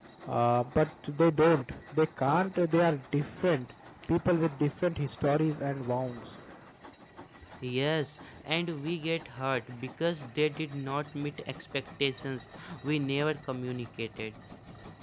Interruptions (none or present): none